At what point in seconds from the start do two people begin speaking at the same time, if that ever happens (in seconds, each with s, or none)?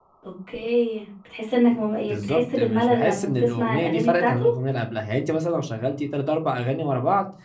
2.1 s